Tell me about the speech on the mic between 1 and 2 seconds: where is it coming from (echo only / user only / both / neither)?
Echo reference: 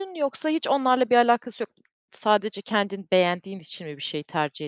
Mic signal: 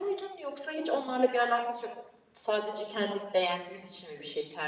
echo only